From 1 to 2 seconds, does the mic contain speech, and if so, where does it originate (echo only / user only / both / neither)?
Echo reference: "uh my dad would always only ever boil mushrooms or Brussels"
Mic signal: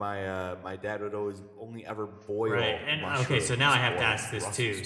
echo only